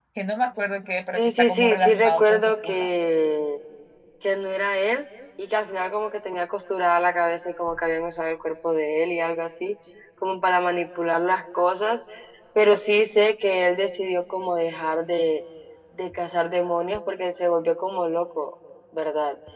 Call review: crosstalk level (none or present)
present